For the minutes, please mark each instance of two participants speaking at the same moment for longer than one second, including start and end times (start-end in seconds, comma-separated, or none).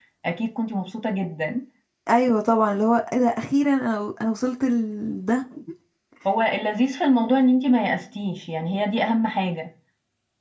none